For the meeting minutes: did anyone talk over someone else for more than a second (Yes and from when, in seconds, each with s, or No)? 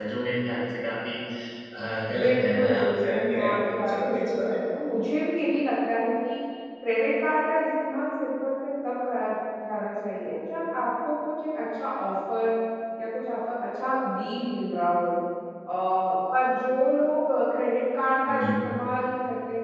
Yes, from 2.2 s